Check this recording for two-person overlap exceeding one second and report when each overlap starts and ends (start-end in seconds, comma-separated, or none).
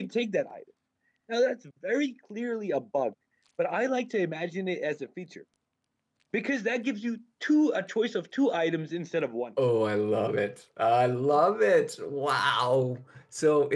none